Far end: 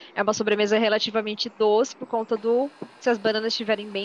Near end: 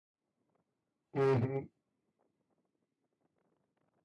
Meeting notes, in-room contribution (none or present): present